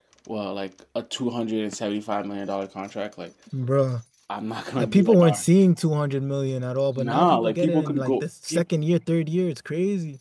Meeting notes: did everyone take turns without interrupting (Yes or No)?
No